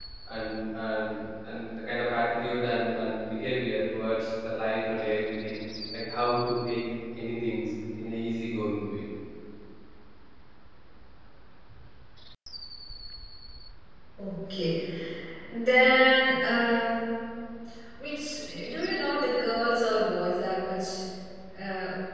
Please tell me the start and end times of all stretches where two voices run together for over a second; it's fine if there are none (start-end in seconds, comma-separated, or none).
none